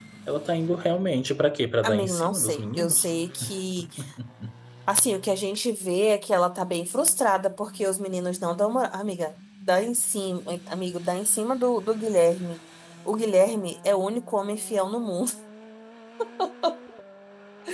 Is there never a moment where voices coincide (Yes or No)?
No